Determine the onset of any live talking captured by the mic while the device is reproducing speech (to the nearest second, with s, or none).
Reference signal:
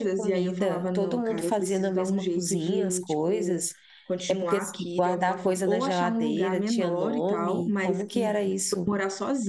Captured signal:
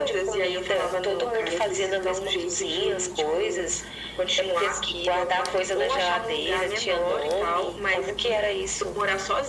none